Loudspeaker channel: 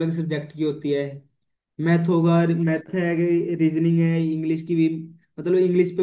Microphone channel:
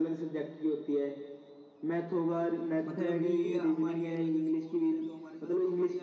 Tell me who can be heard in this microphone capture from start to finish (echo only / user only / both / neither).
both